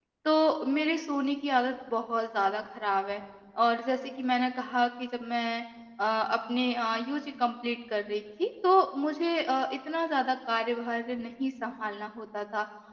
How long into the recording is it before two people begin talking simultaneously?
none

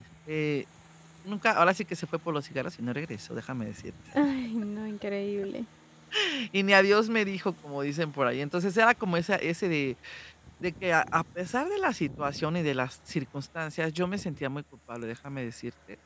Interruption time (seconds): none

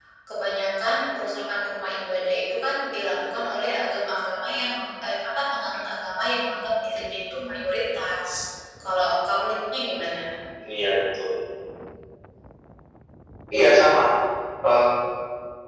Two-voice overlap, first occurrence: none

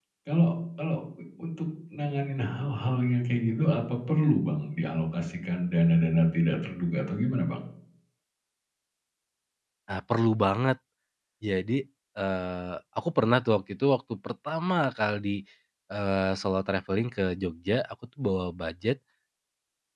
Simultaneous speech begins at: none

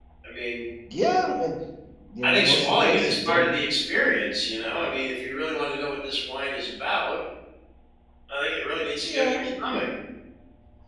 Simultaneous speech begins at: 2.2 s

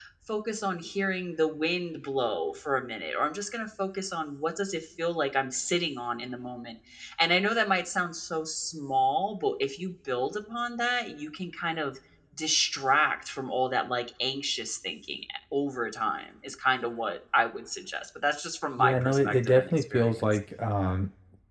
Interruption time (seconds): 18.8 s

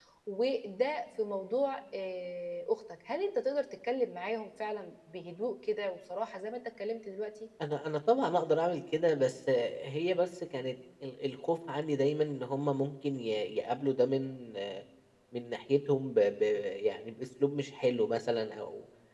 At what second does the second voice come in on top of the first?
none

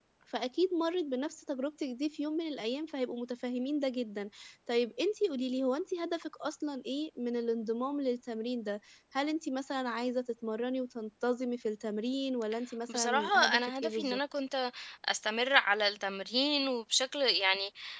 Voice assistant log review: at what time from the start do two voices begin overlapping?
12.9 s

